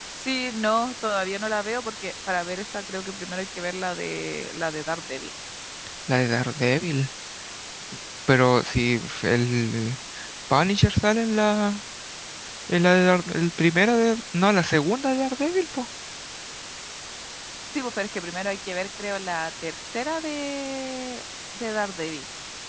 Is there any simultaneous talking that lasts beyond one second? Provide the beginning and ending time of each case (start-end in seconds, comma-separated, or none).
none